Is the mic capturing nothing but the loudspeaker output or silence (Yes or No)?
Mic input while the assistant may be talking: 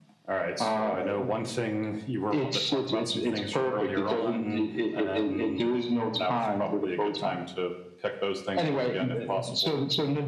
Yes